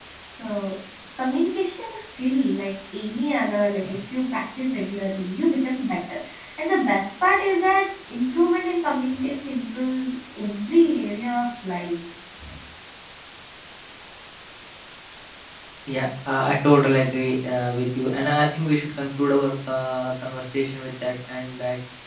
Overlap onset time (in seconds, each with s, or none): none